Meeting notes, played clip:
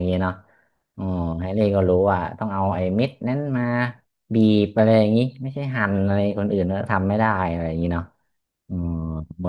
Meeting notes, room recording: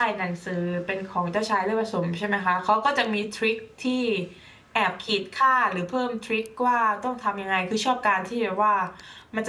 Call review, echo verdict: none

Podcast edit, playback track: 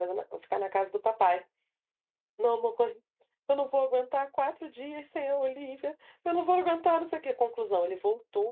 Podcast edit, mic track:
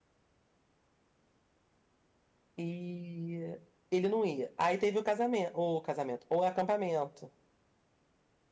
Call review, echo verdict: none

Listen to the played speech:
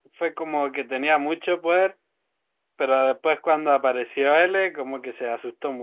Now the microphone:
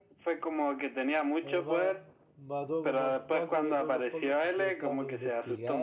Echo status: present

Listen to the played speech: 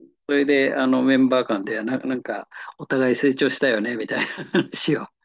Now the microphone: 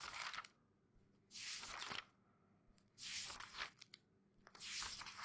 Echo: none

